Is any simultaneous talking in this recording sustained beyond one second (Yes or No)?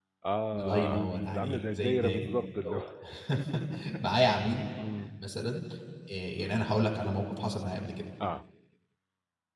Yes